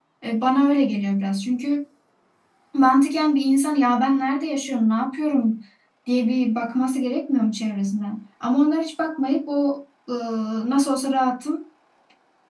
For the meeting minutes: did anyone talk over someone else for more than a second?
No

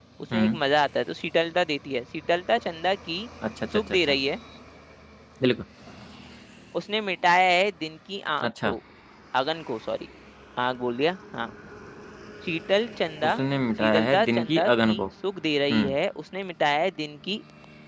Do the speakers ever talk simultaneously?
Yes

